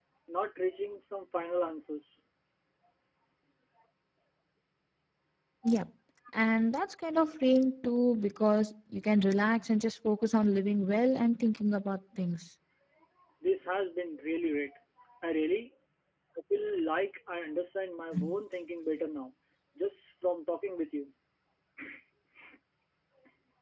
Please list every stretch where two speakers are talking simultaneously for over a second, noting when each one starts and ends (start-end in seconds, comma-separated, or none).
none